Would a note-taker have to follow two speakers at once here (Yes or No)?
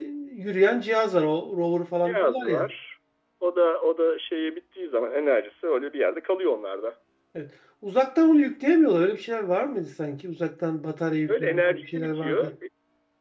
Yes